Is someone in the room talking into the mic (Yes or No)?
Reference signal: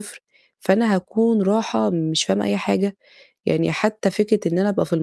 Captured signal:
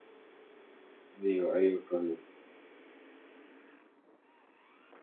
Yes